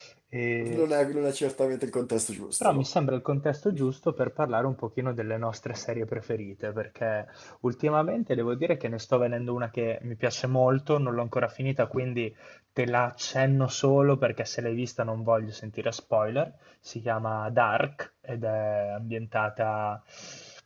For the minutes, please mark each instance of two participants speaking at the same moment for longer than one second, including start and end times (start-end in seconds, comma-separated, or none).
none